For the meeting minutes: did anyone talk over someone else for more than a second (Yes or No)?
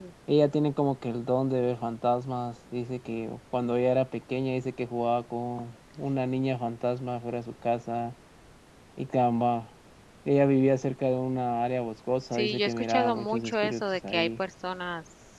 Yes